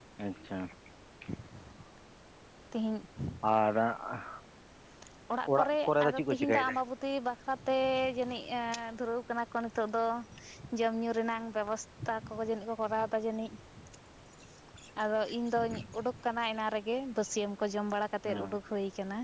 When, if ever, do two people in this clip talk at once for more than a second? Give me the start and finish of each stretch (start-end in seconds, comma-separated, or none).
5.5-6.7